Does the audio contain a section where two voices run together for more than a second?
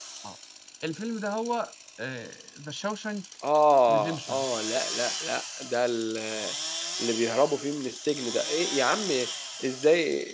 No

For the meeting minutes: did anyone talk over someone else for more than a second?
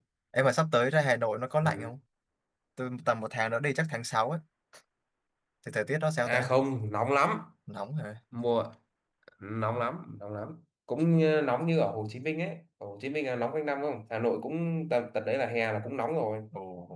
No

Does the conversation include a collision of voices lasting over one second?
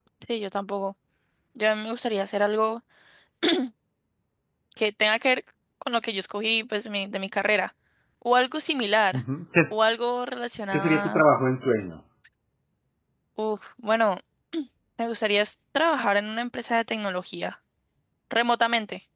No

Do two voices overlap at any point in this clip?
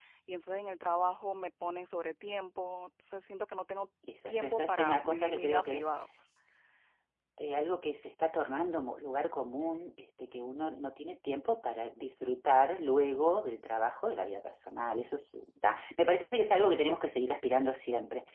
Yes, from 4.0 s

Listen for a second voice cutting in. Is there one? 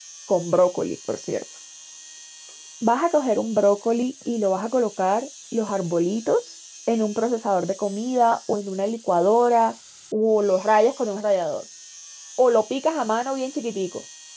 No

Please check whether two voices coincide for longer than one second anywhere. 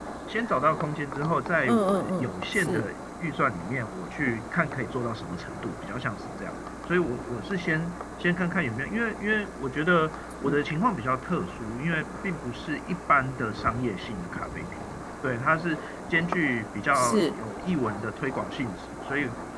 Yes, from 1.7 s

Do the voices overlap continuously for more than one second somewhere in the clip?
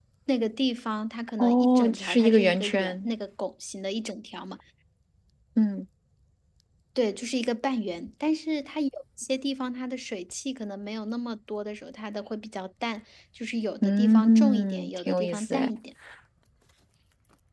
Yes, from 1.4 s

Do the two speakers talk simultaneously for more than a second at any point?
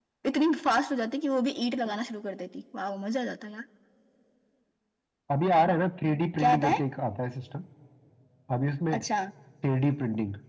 No

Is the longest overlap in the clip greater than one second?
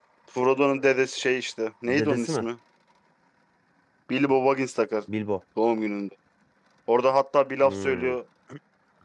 No

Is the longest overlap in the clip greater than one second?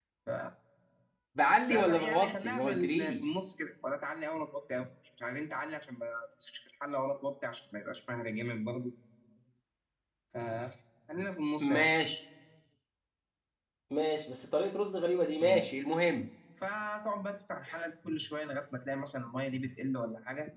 Yes, from 1.7 s

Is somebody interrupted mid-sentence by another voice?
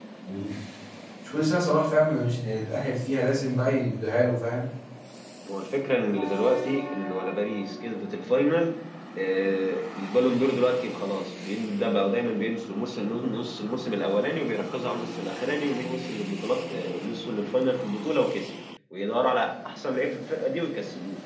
No

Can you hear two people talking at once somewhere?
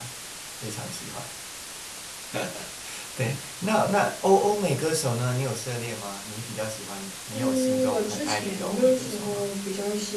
Yes, from 7.3 s

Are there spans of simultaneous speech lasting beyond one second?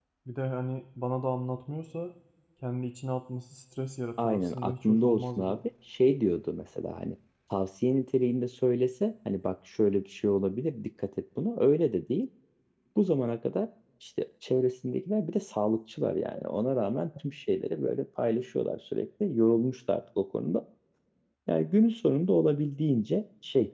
Yes, from 4.2 s

